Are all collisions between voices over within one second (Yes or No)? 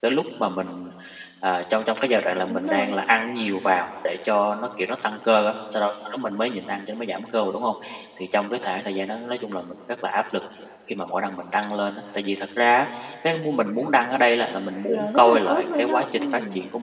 No